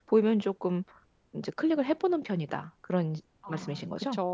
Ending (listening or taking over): taking over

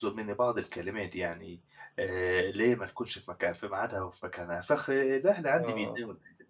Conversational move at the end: listening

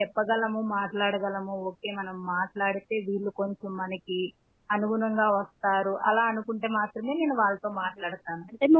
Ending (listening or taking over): taking over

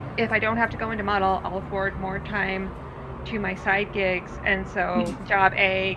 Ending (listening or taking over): listening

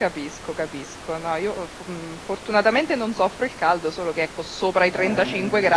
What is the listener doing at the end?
listening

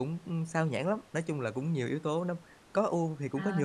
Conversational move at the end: taking over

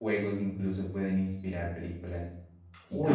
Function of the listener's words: taking over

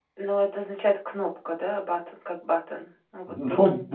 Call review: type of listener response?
taking over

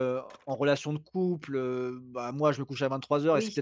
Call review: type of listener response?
listening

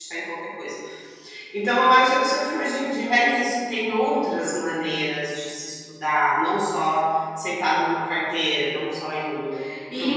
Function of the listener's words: taking over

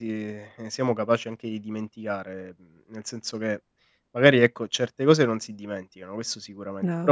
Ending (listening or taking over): listening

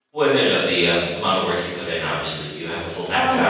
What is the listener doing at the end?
taking over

